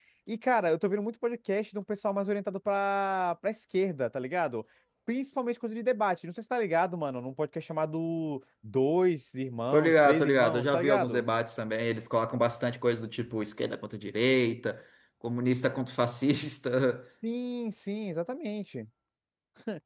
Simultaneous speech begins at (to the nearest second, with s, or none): 10 s